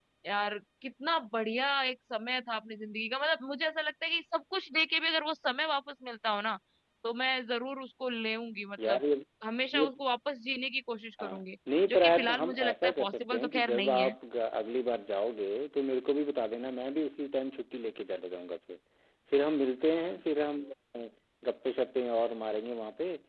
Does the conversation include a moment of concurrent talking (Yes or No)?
Yes